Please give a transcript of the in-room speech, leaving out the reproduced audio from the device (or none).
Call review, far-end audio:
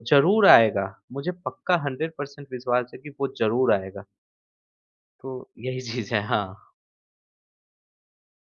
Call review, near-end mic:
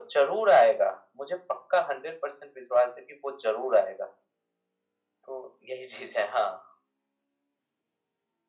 none